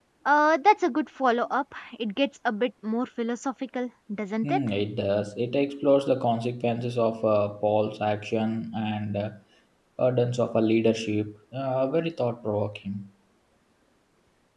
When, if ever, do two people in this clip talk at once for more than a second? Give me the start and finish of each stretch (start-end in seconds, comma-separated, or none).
none